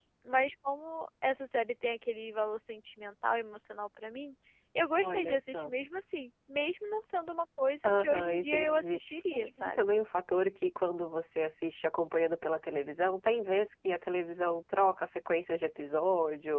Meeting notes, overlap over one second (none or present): present